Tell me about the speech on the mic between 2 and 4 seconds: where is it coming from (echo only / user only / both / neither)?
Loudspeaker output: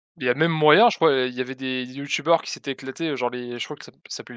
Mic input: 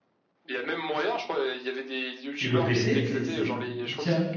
both